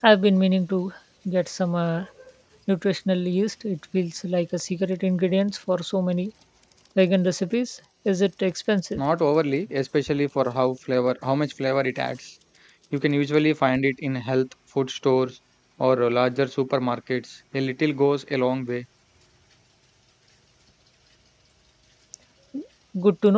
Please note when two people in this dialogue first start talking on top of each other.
none

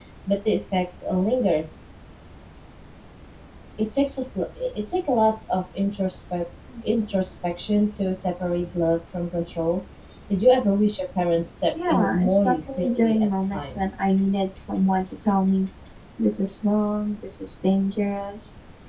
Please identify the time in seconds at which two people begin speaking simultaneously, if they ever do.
11.7 s

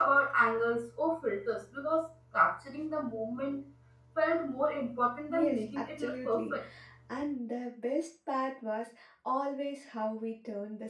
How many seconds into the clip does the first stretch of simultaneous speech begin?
5.3 s

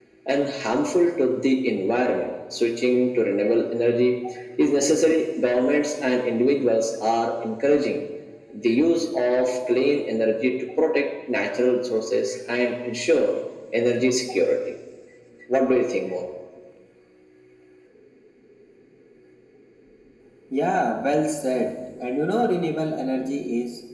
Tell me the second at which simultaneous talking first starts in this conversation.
none

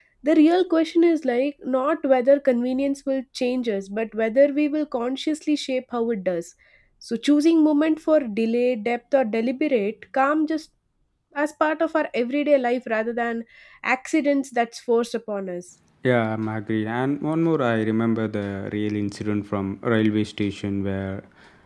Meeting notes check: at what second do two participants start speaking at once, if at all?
none

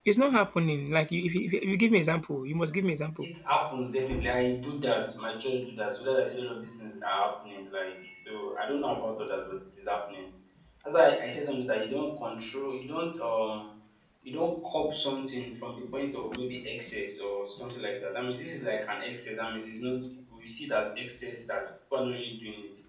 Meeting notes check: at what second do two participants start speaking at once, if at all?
none

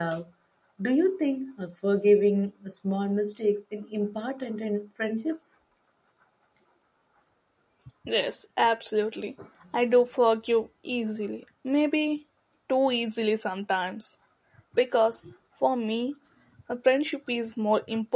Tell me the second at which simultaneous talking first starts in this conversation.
none

